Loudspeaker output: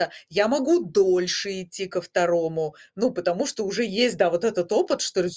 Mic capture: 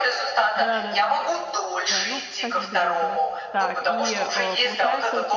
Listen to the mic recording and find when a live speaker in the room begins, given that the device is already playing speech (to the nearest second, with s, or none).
1 s